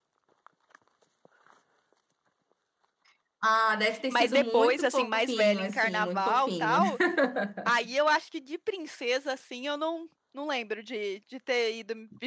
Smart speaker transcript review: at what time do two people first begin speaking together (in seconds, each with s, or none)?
4.1 s